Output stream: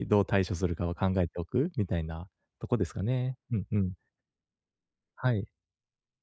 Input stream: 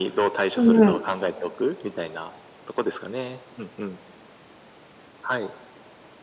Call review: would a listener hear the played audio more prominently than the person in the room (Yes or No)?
No